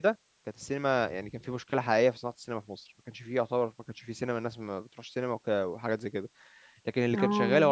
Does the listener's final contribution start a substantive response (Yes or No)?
No